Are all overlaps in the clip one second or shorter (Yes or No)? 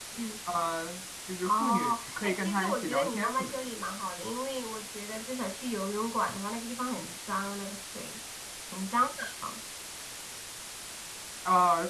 No